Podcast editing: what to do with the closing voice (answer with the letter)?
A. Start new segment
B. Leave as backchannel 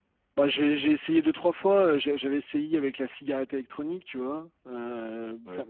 B